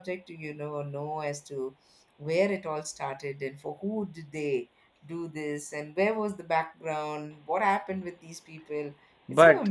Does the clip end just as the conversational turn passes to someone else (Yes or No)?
Yes